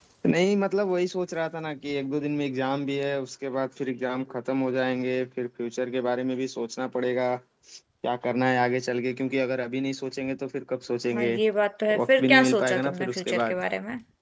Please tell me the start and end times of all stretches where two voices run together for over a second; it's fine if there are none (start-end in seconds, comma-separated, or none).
12.0-13.6